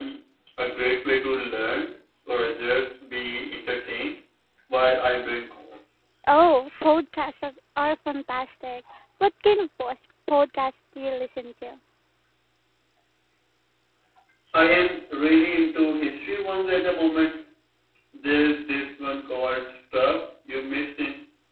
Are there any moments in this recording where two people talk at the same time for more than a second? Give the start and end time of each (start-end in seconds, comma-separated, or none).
none